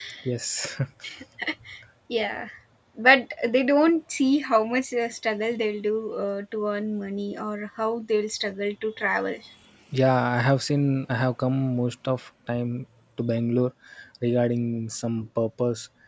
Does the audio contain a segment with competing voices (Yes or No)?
No